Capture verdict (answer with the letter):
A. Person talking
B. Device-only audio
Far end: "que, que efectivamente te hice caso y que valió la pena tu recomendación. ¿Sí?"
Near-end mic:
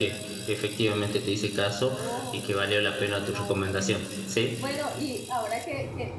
A